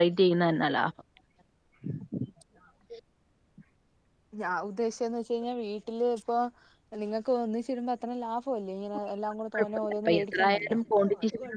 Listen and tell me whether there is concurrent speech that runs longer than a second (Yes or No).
Yes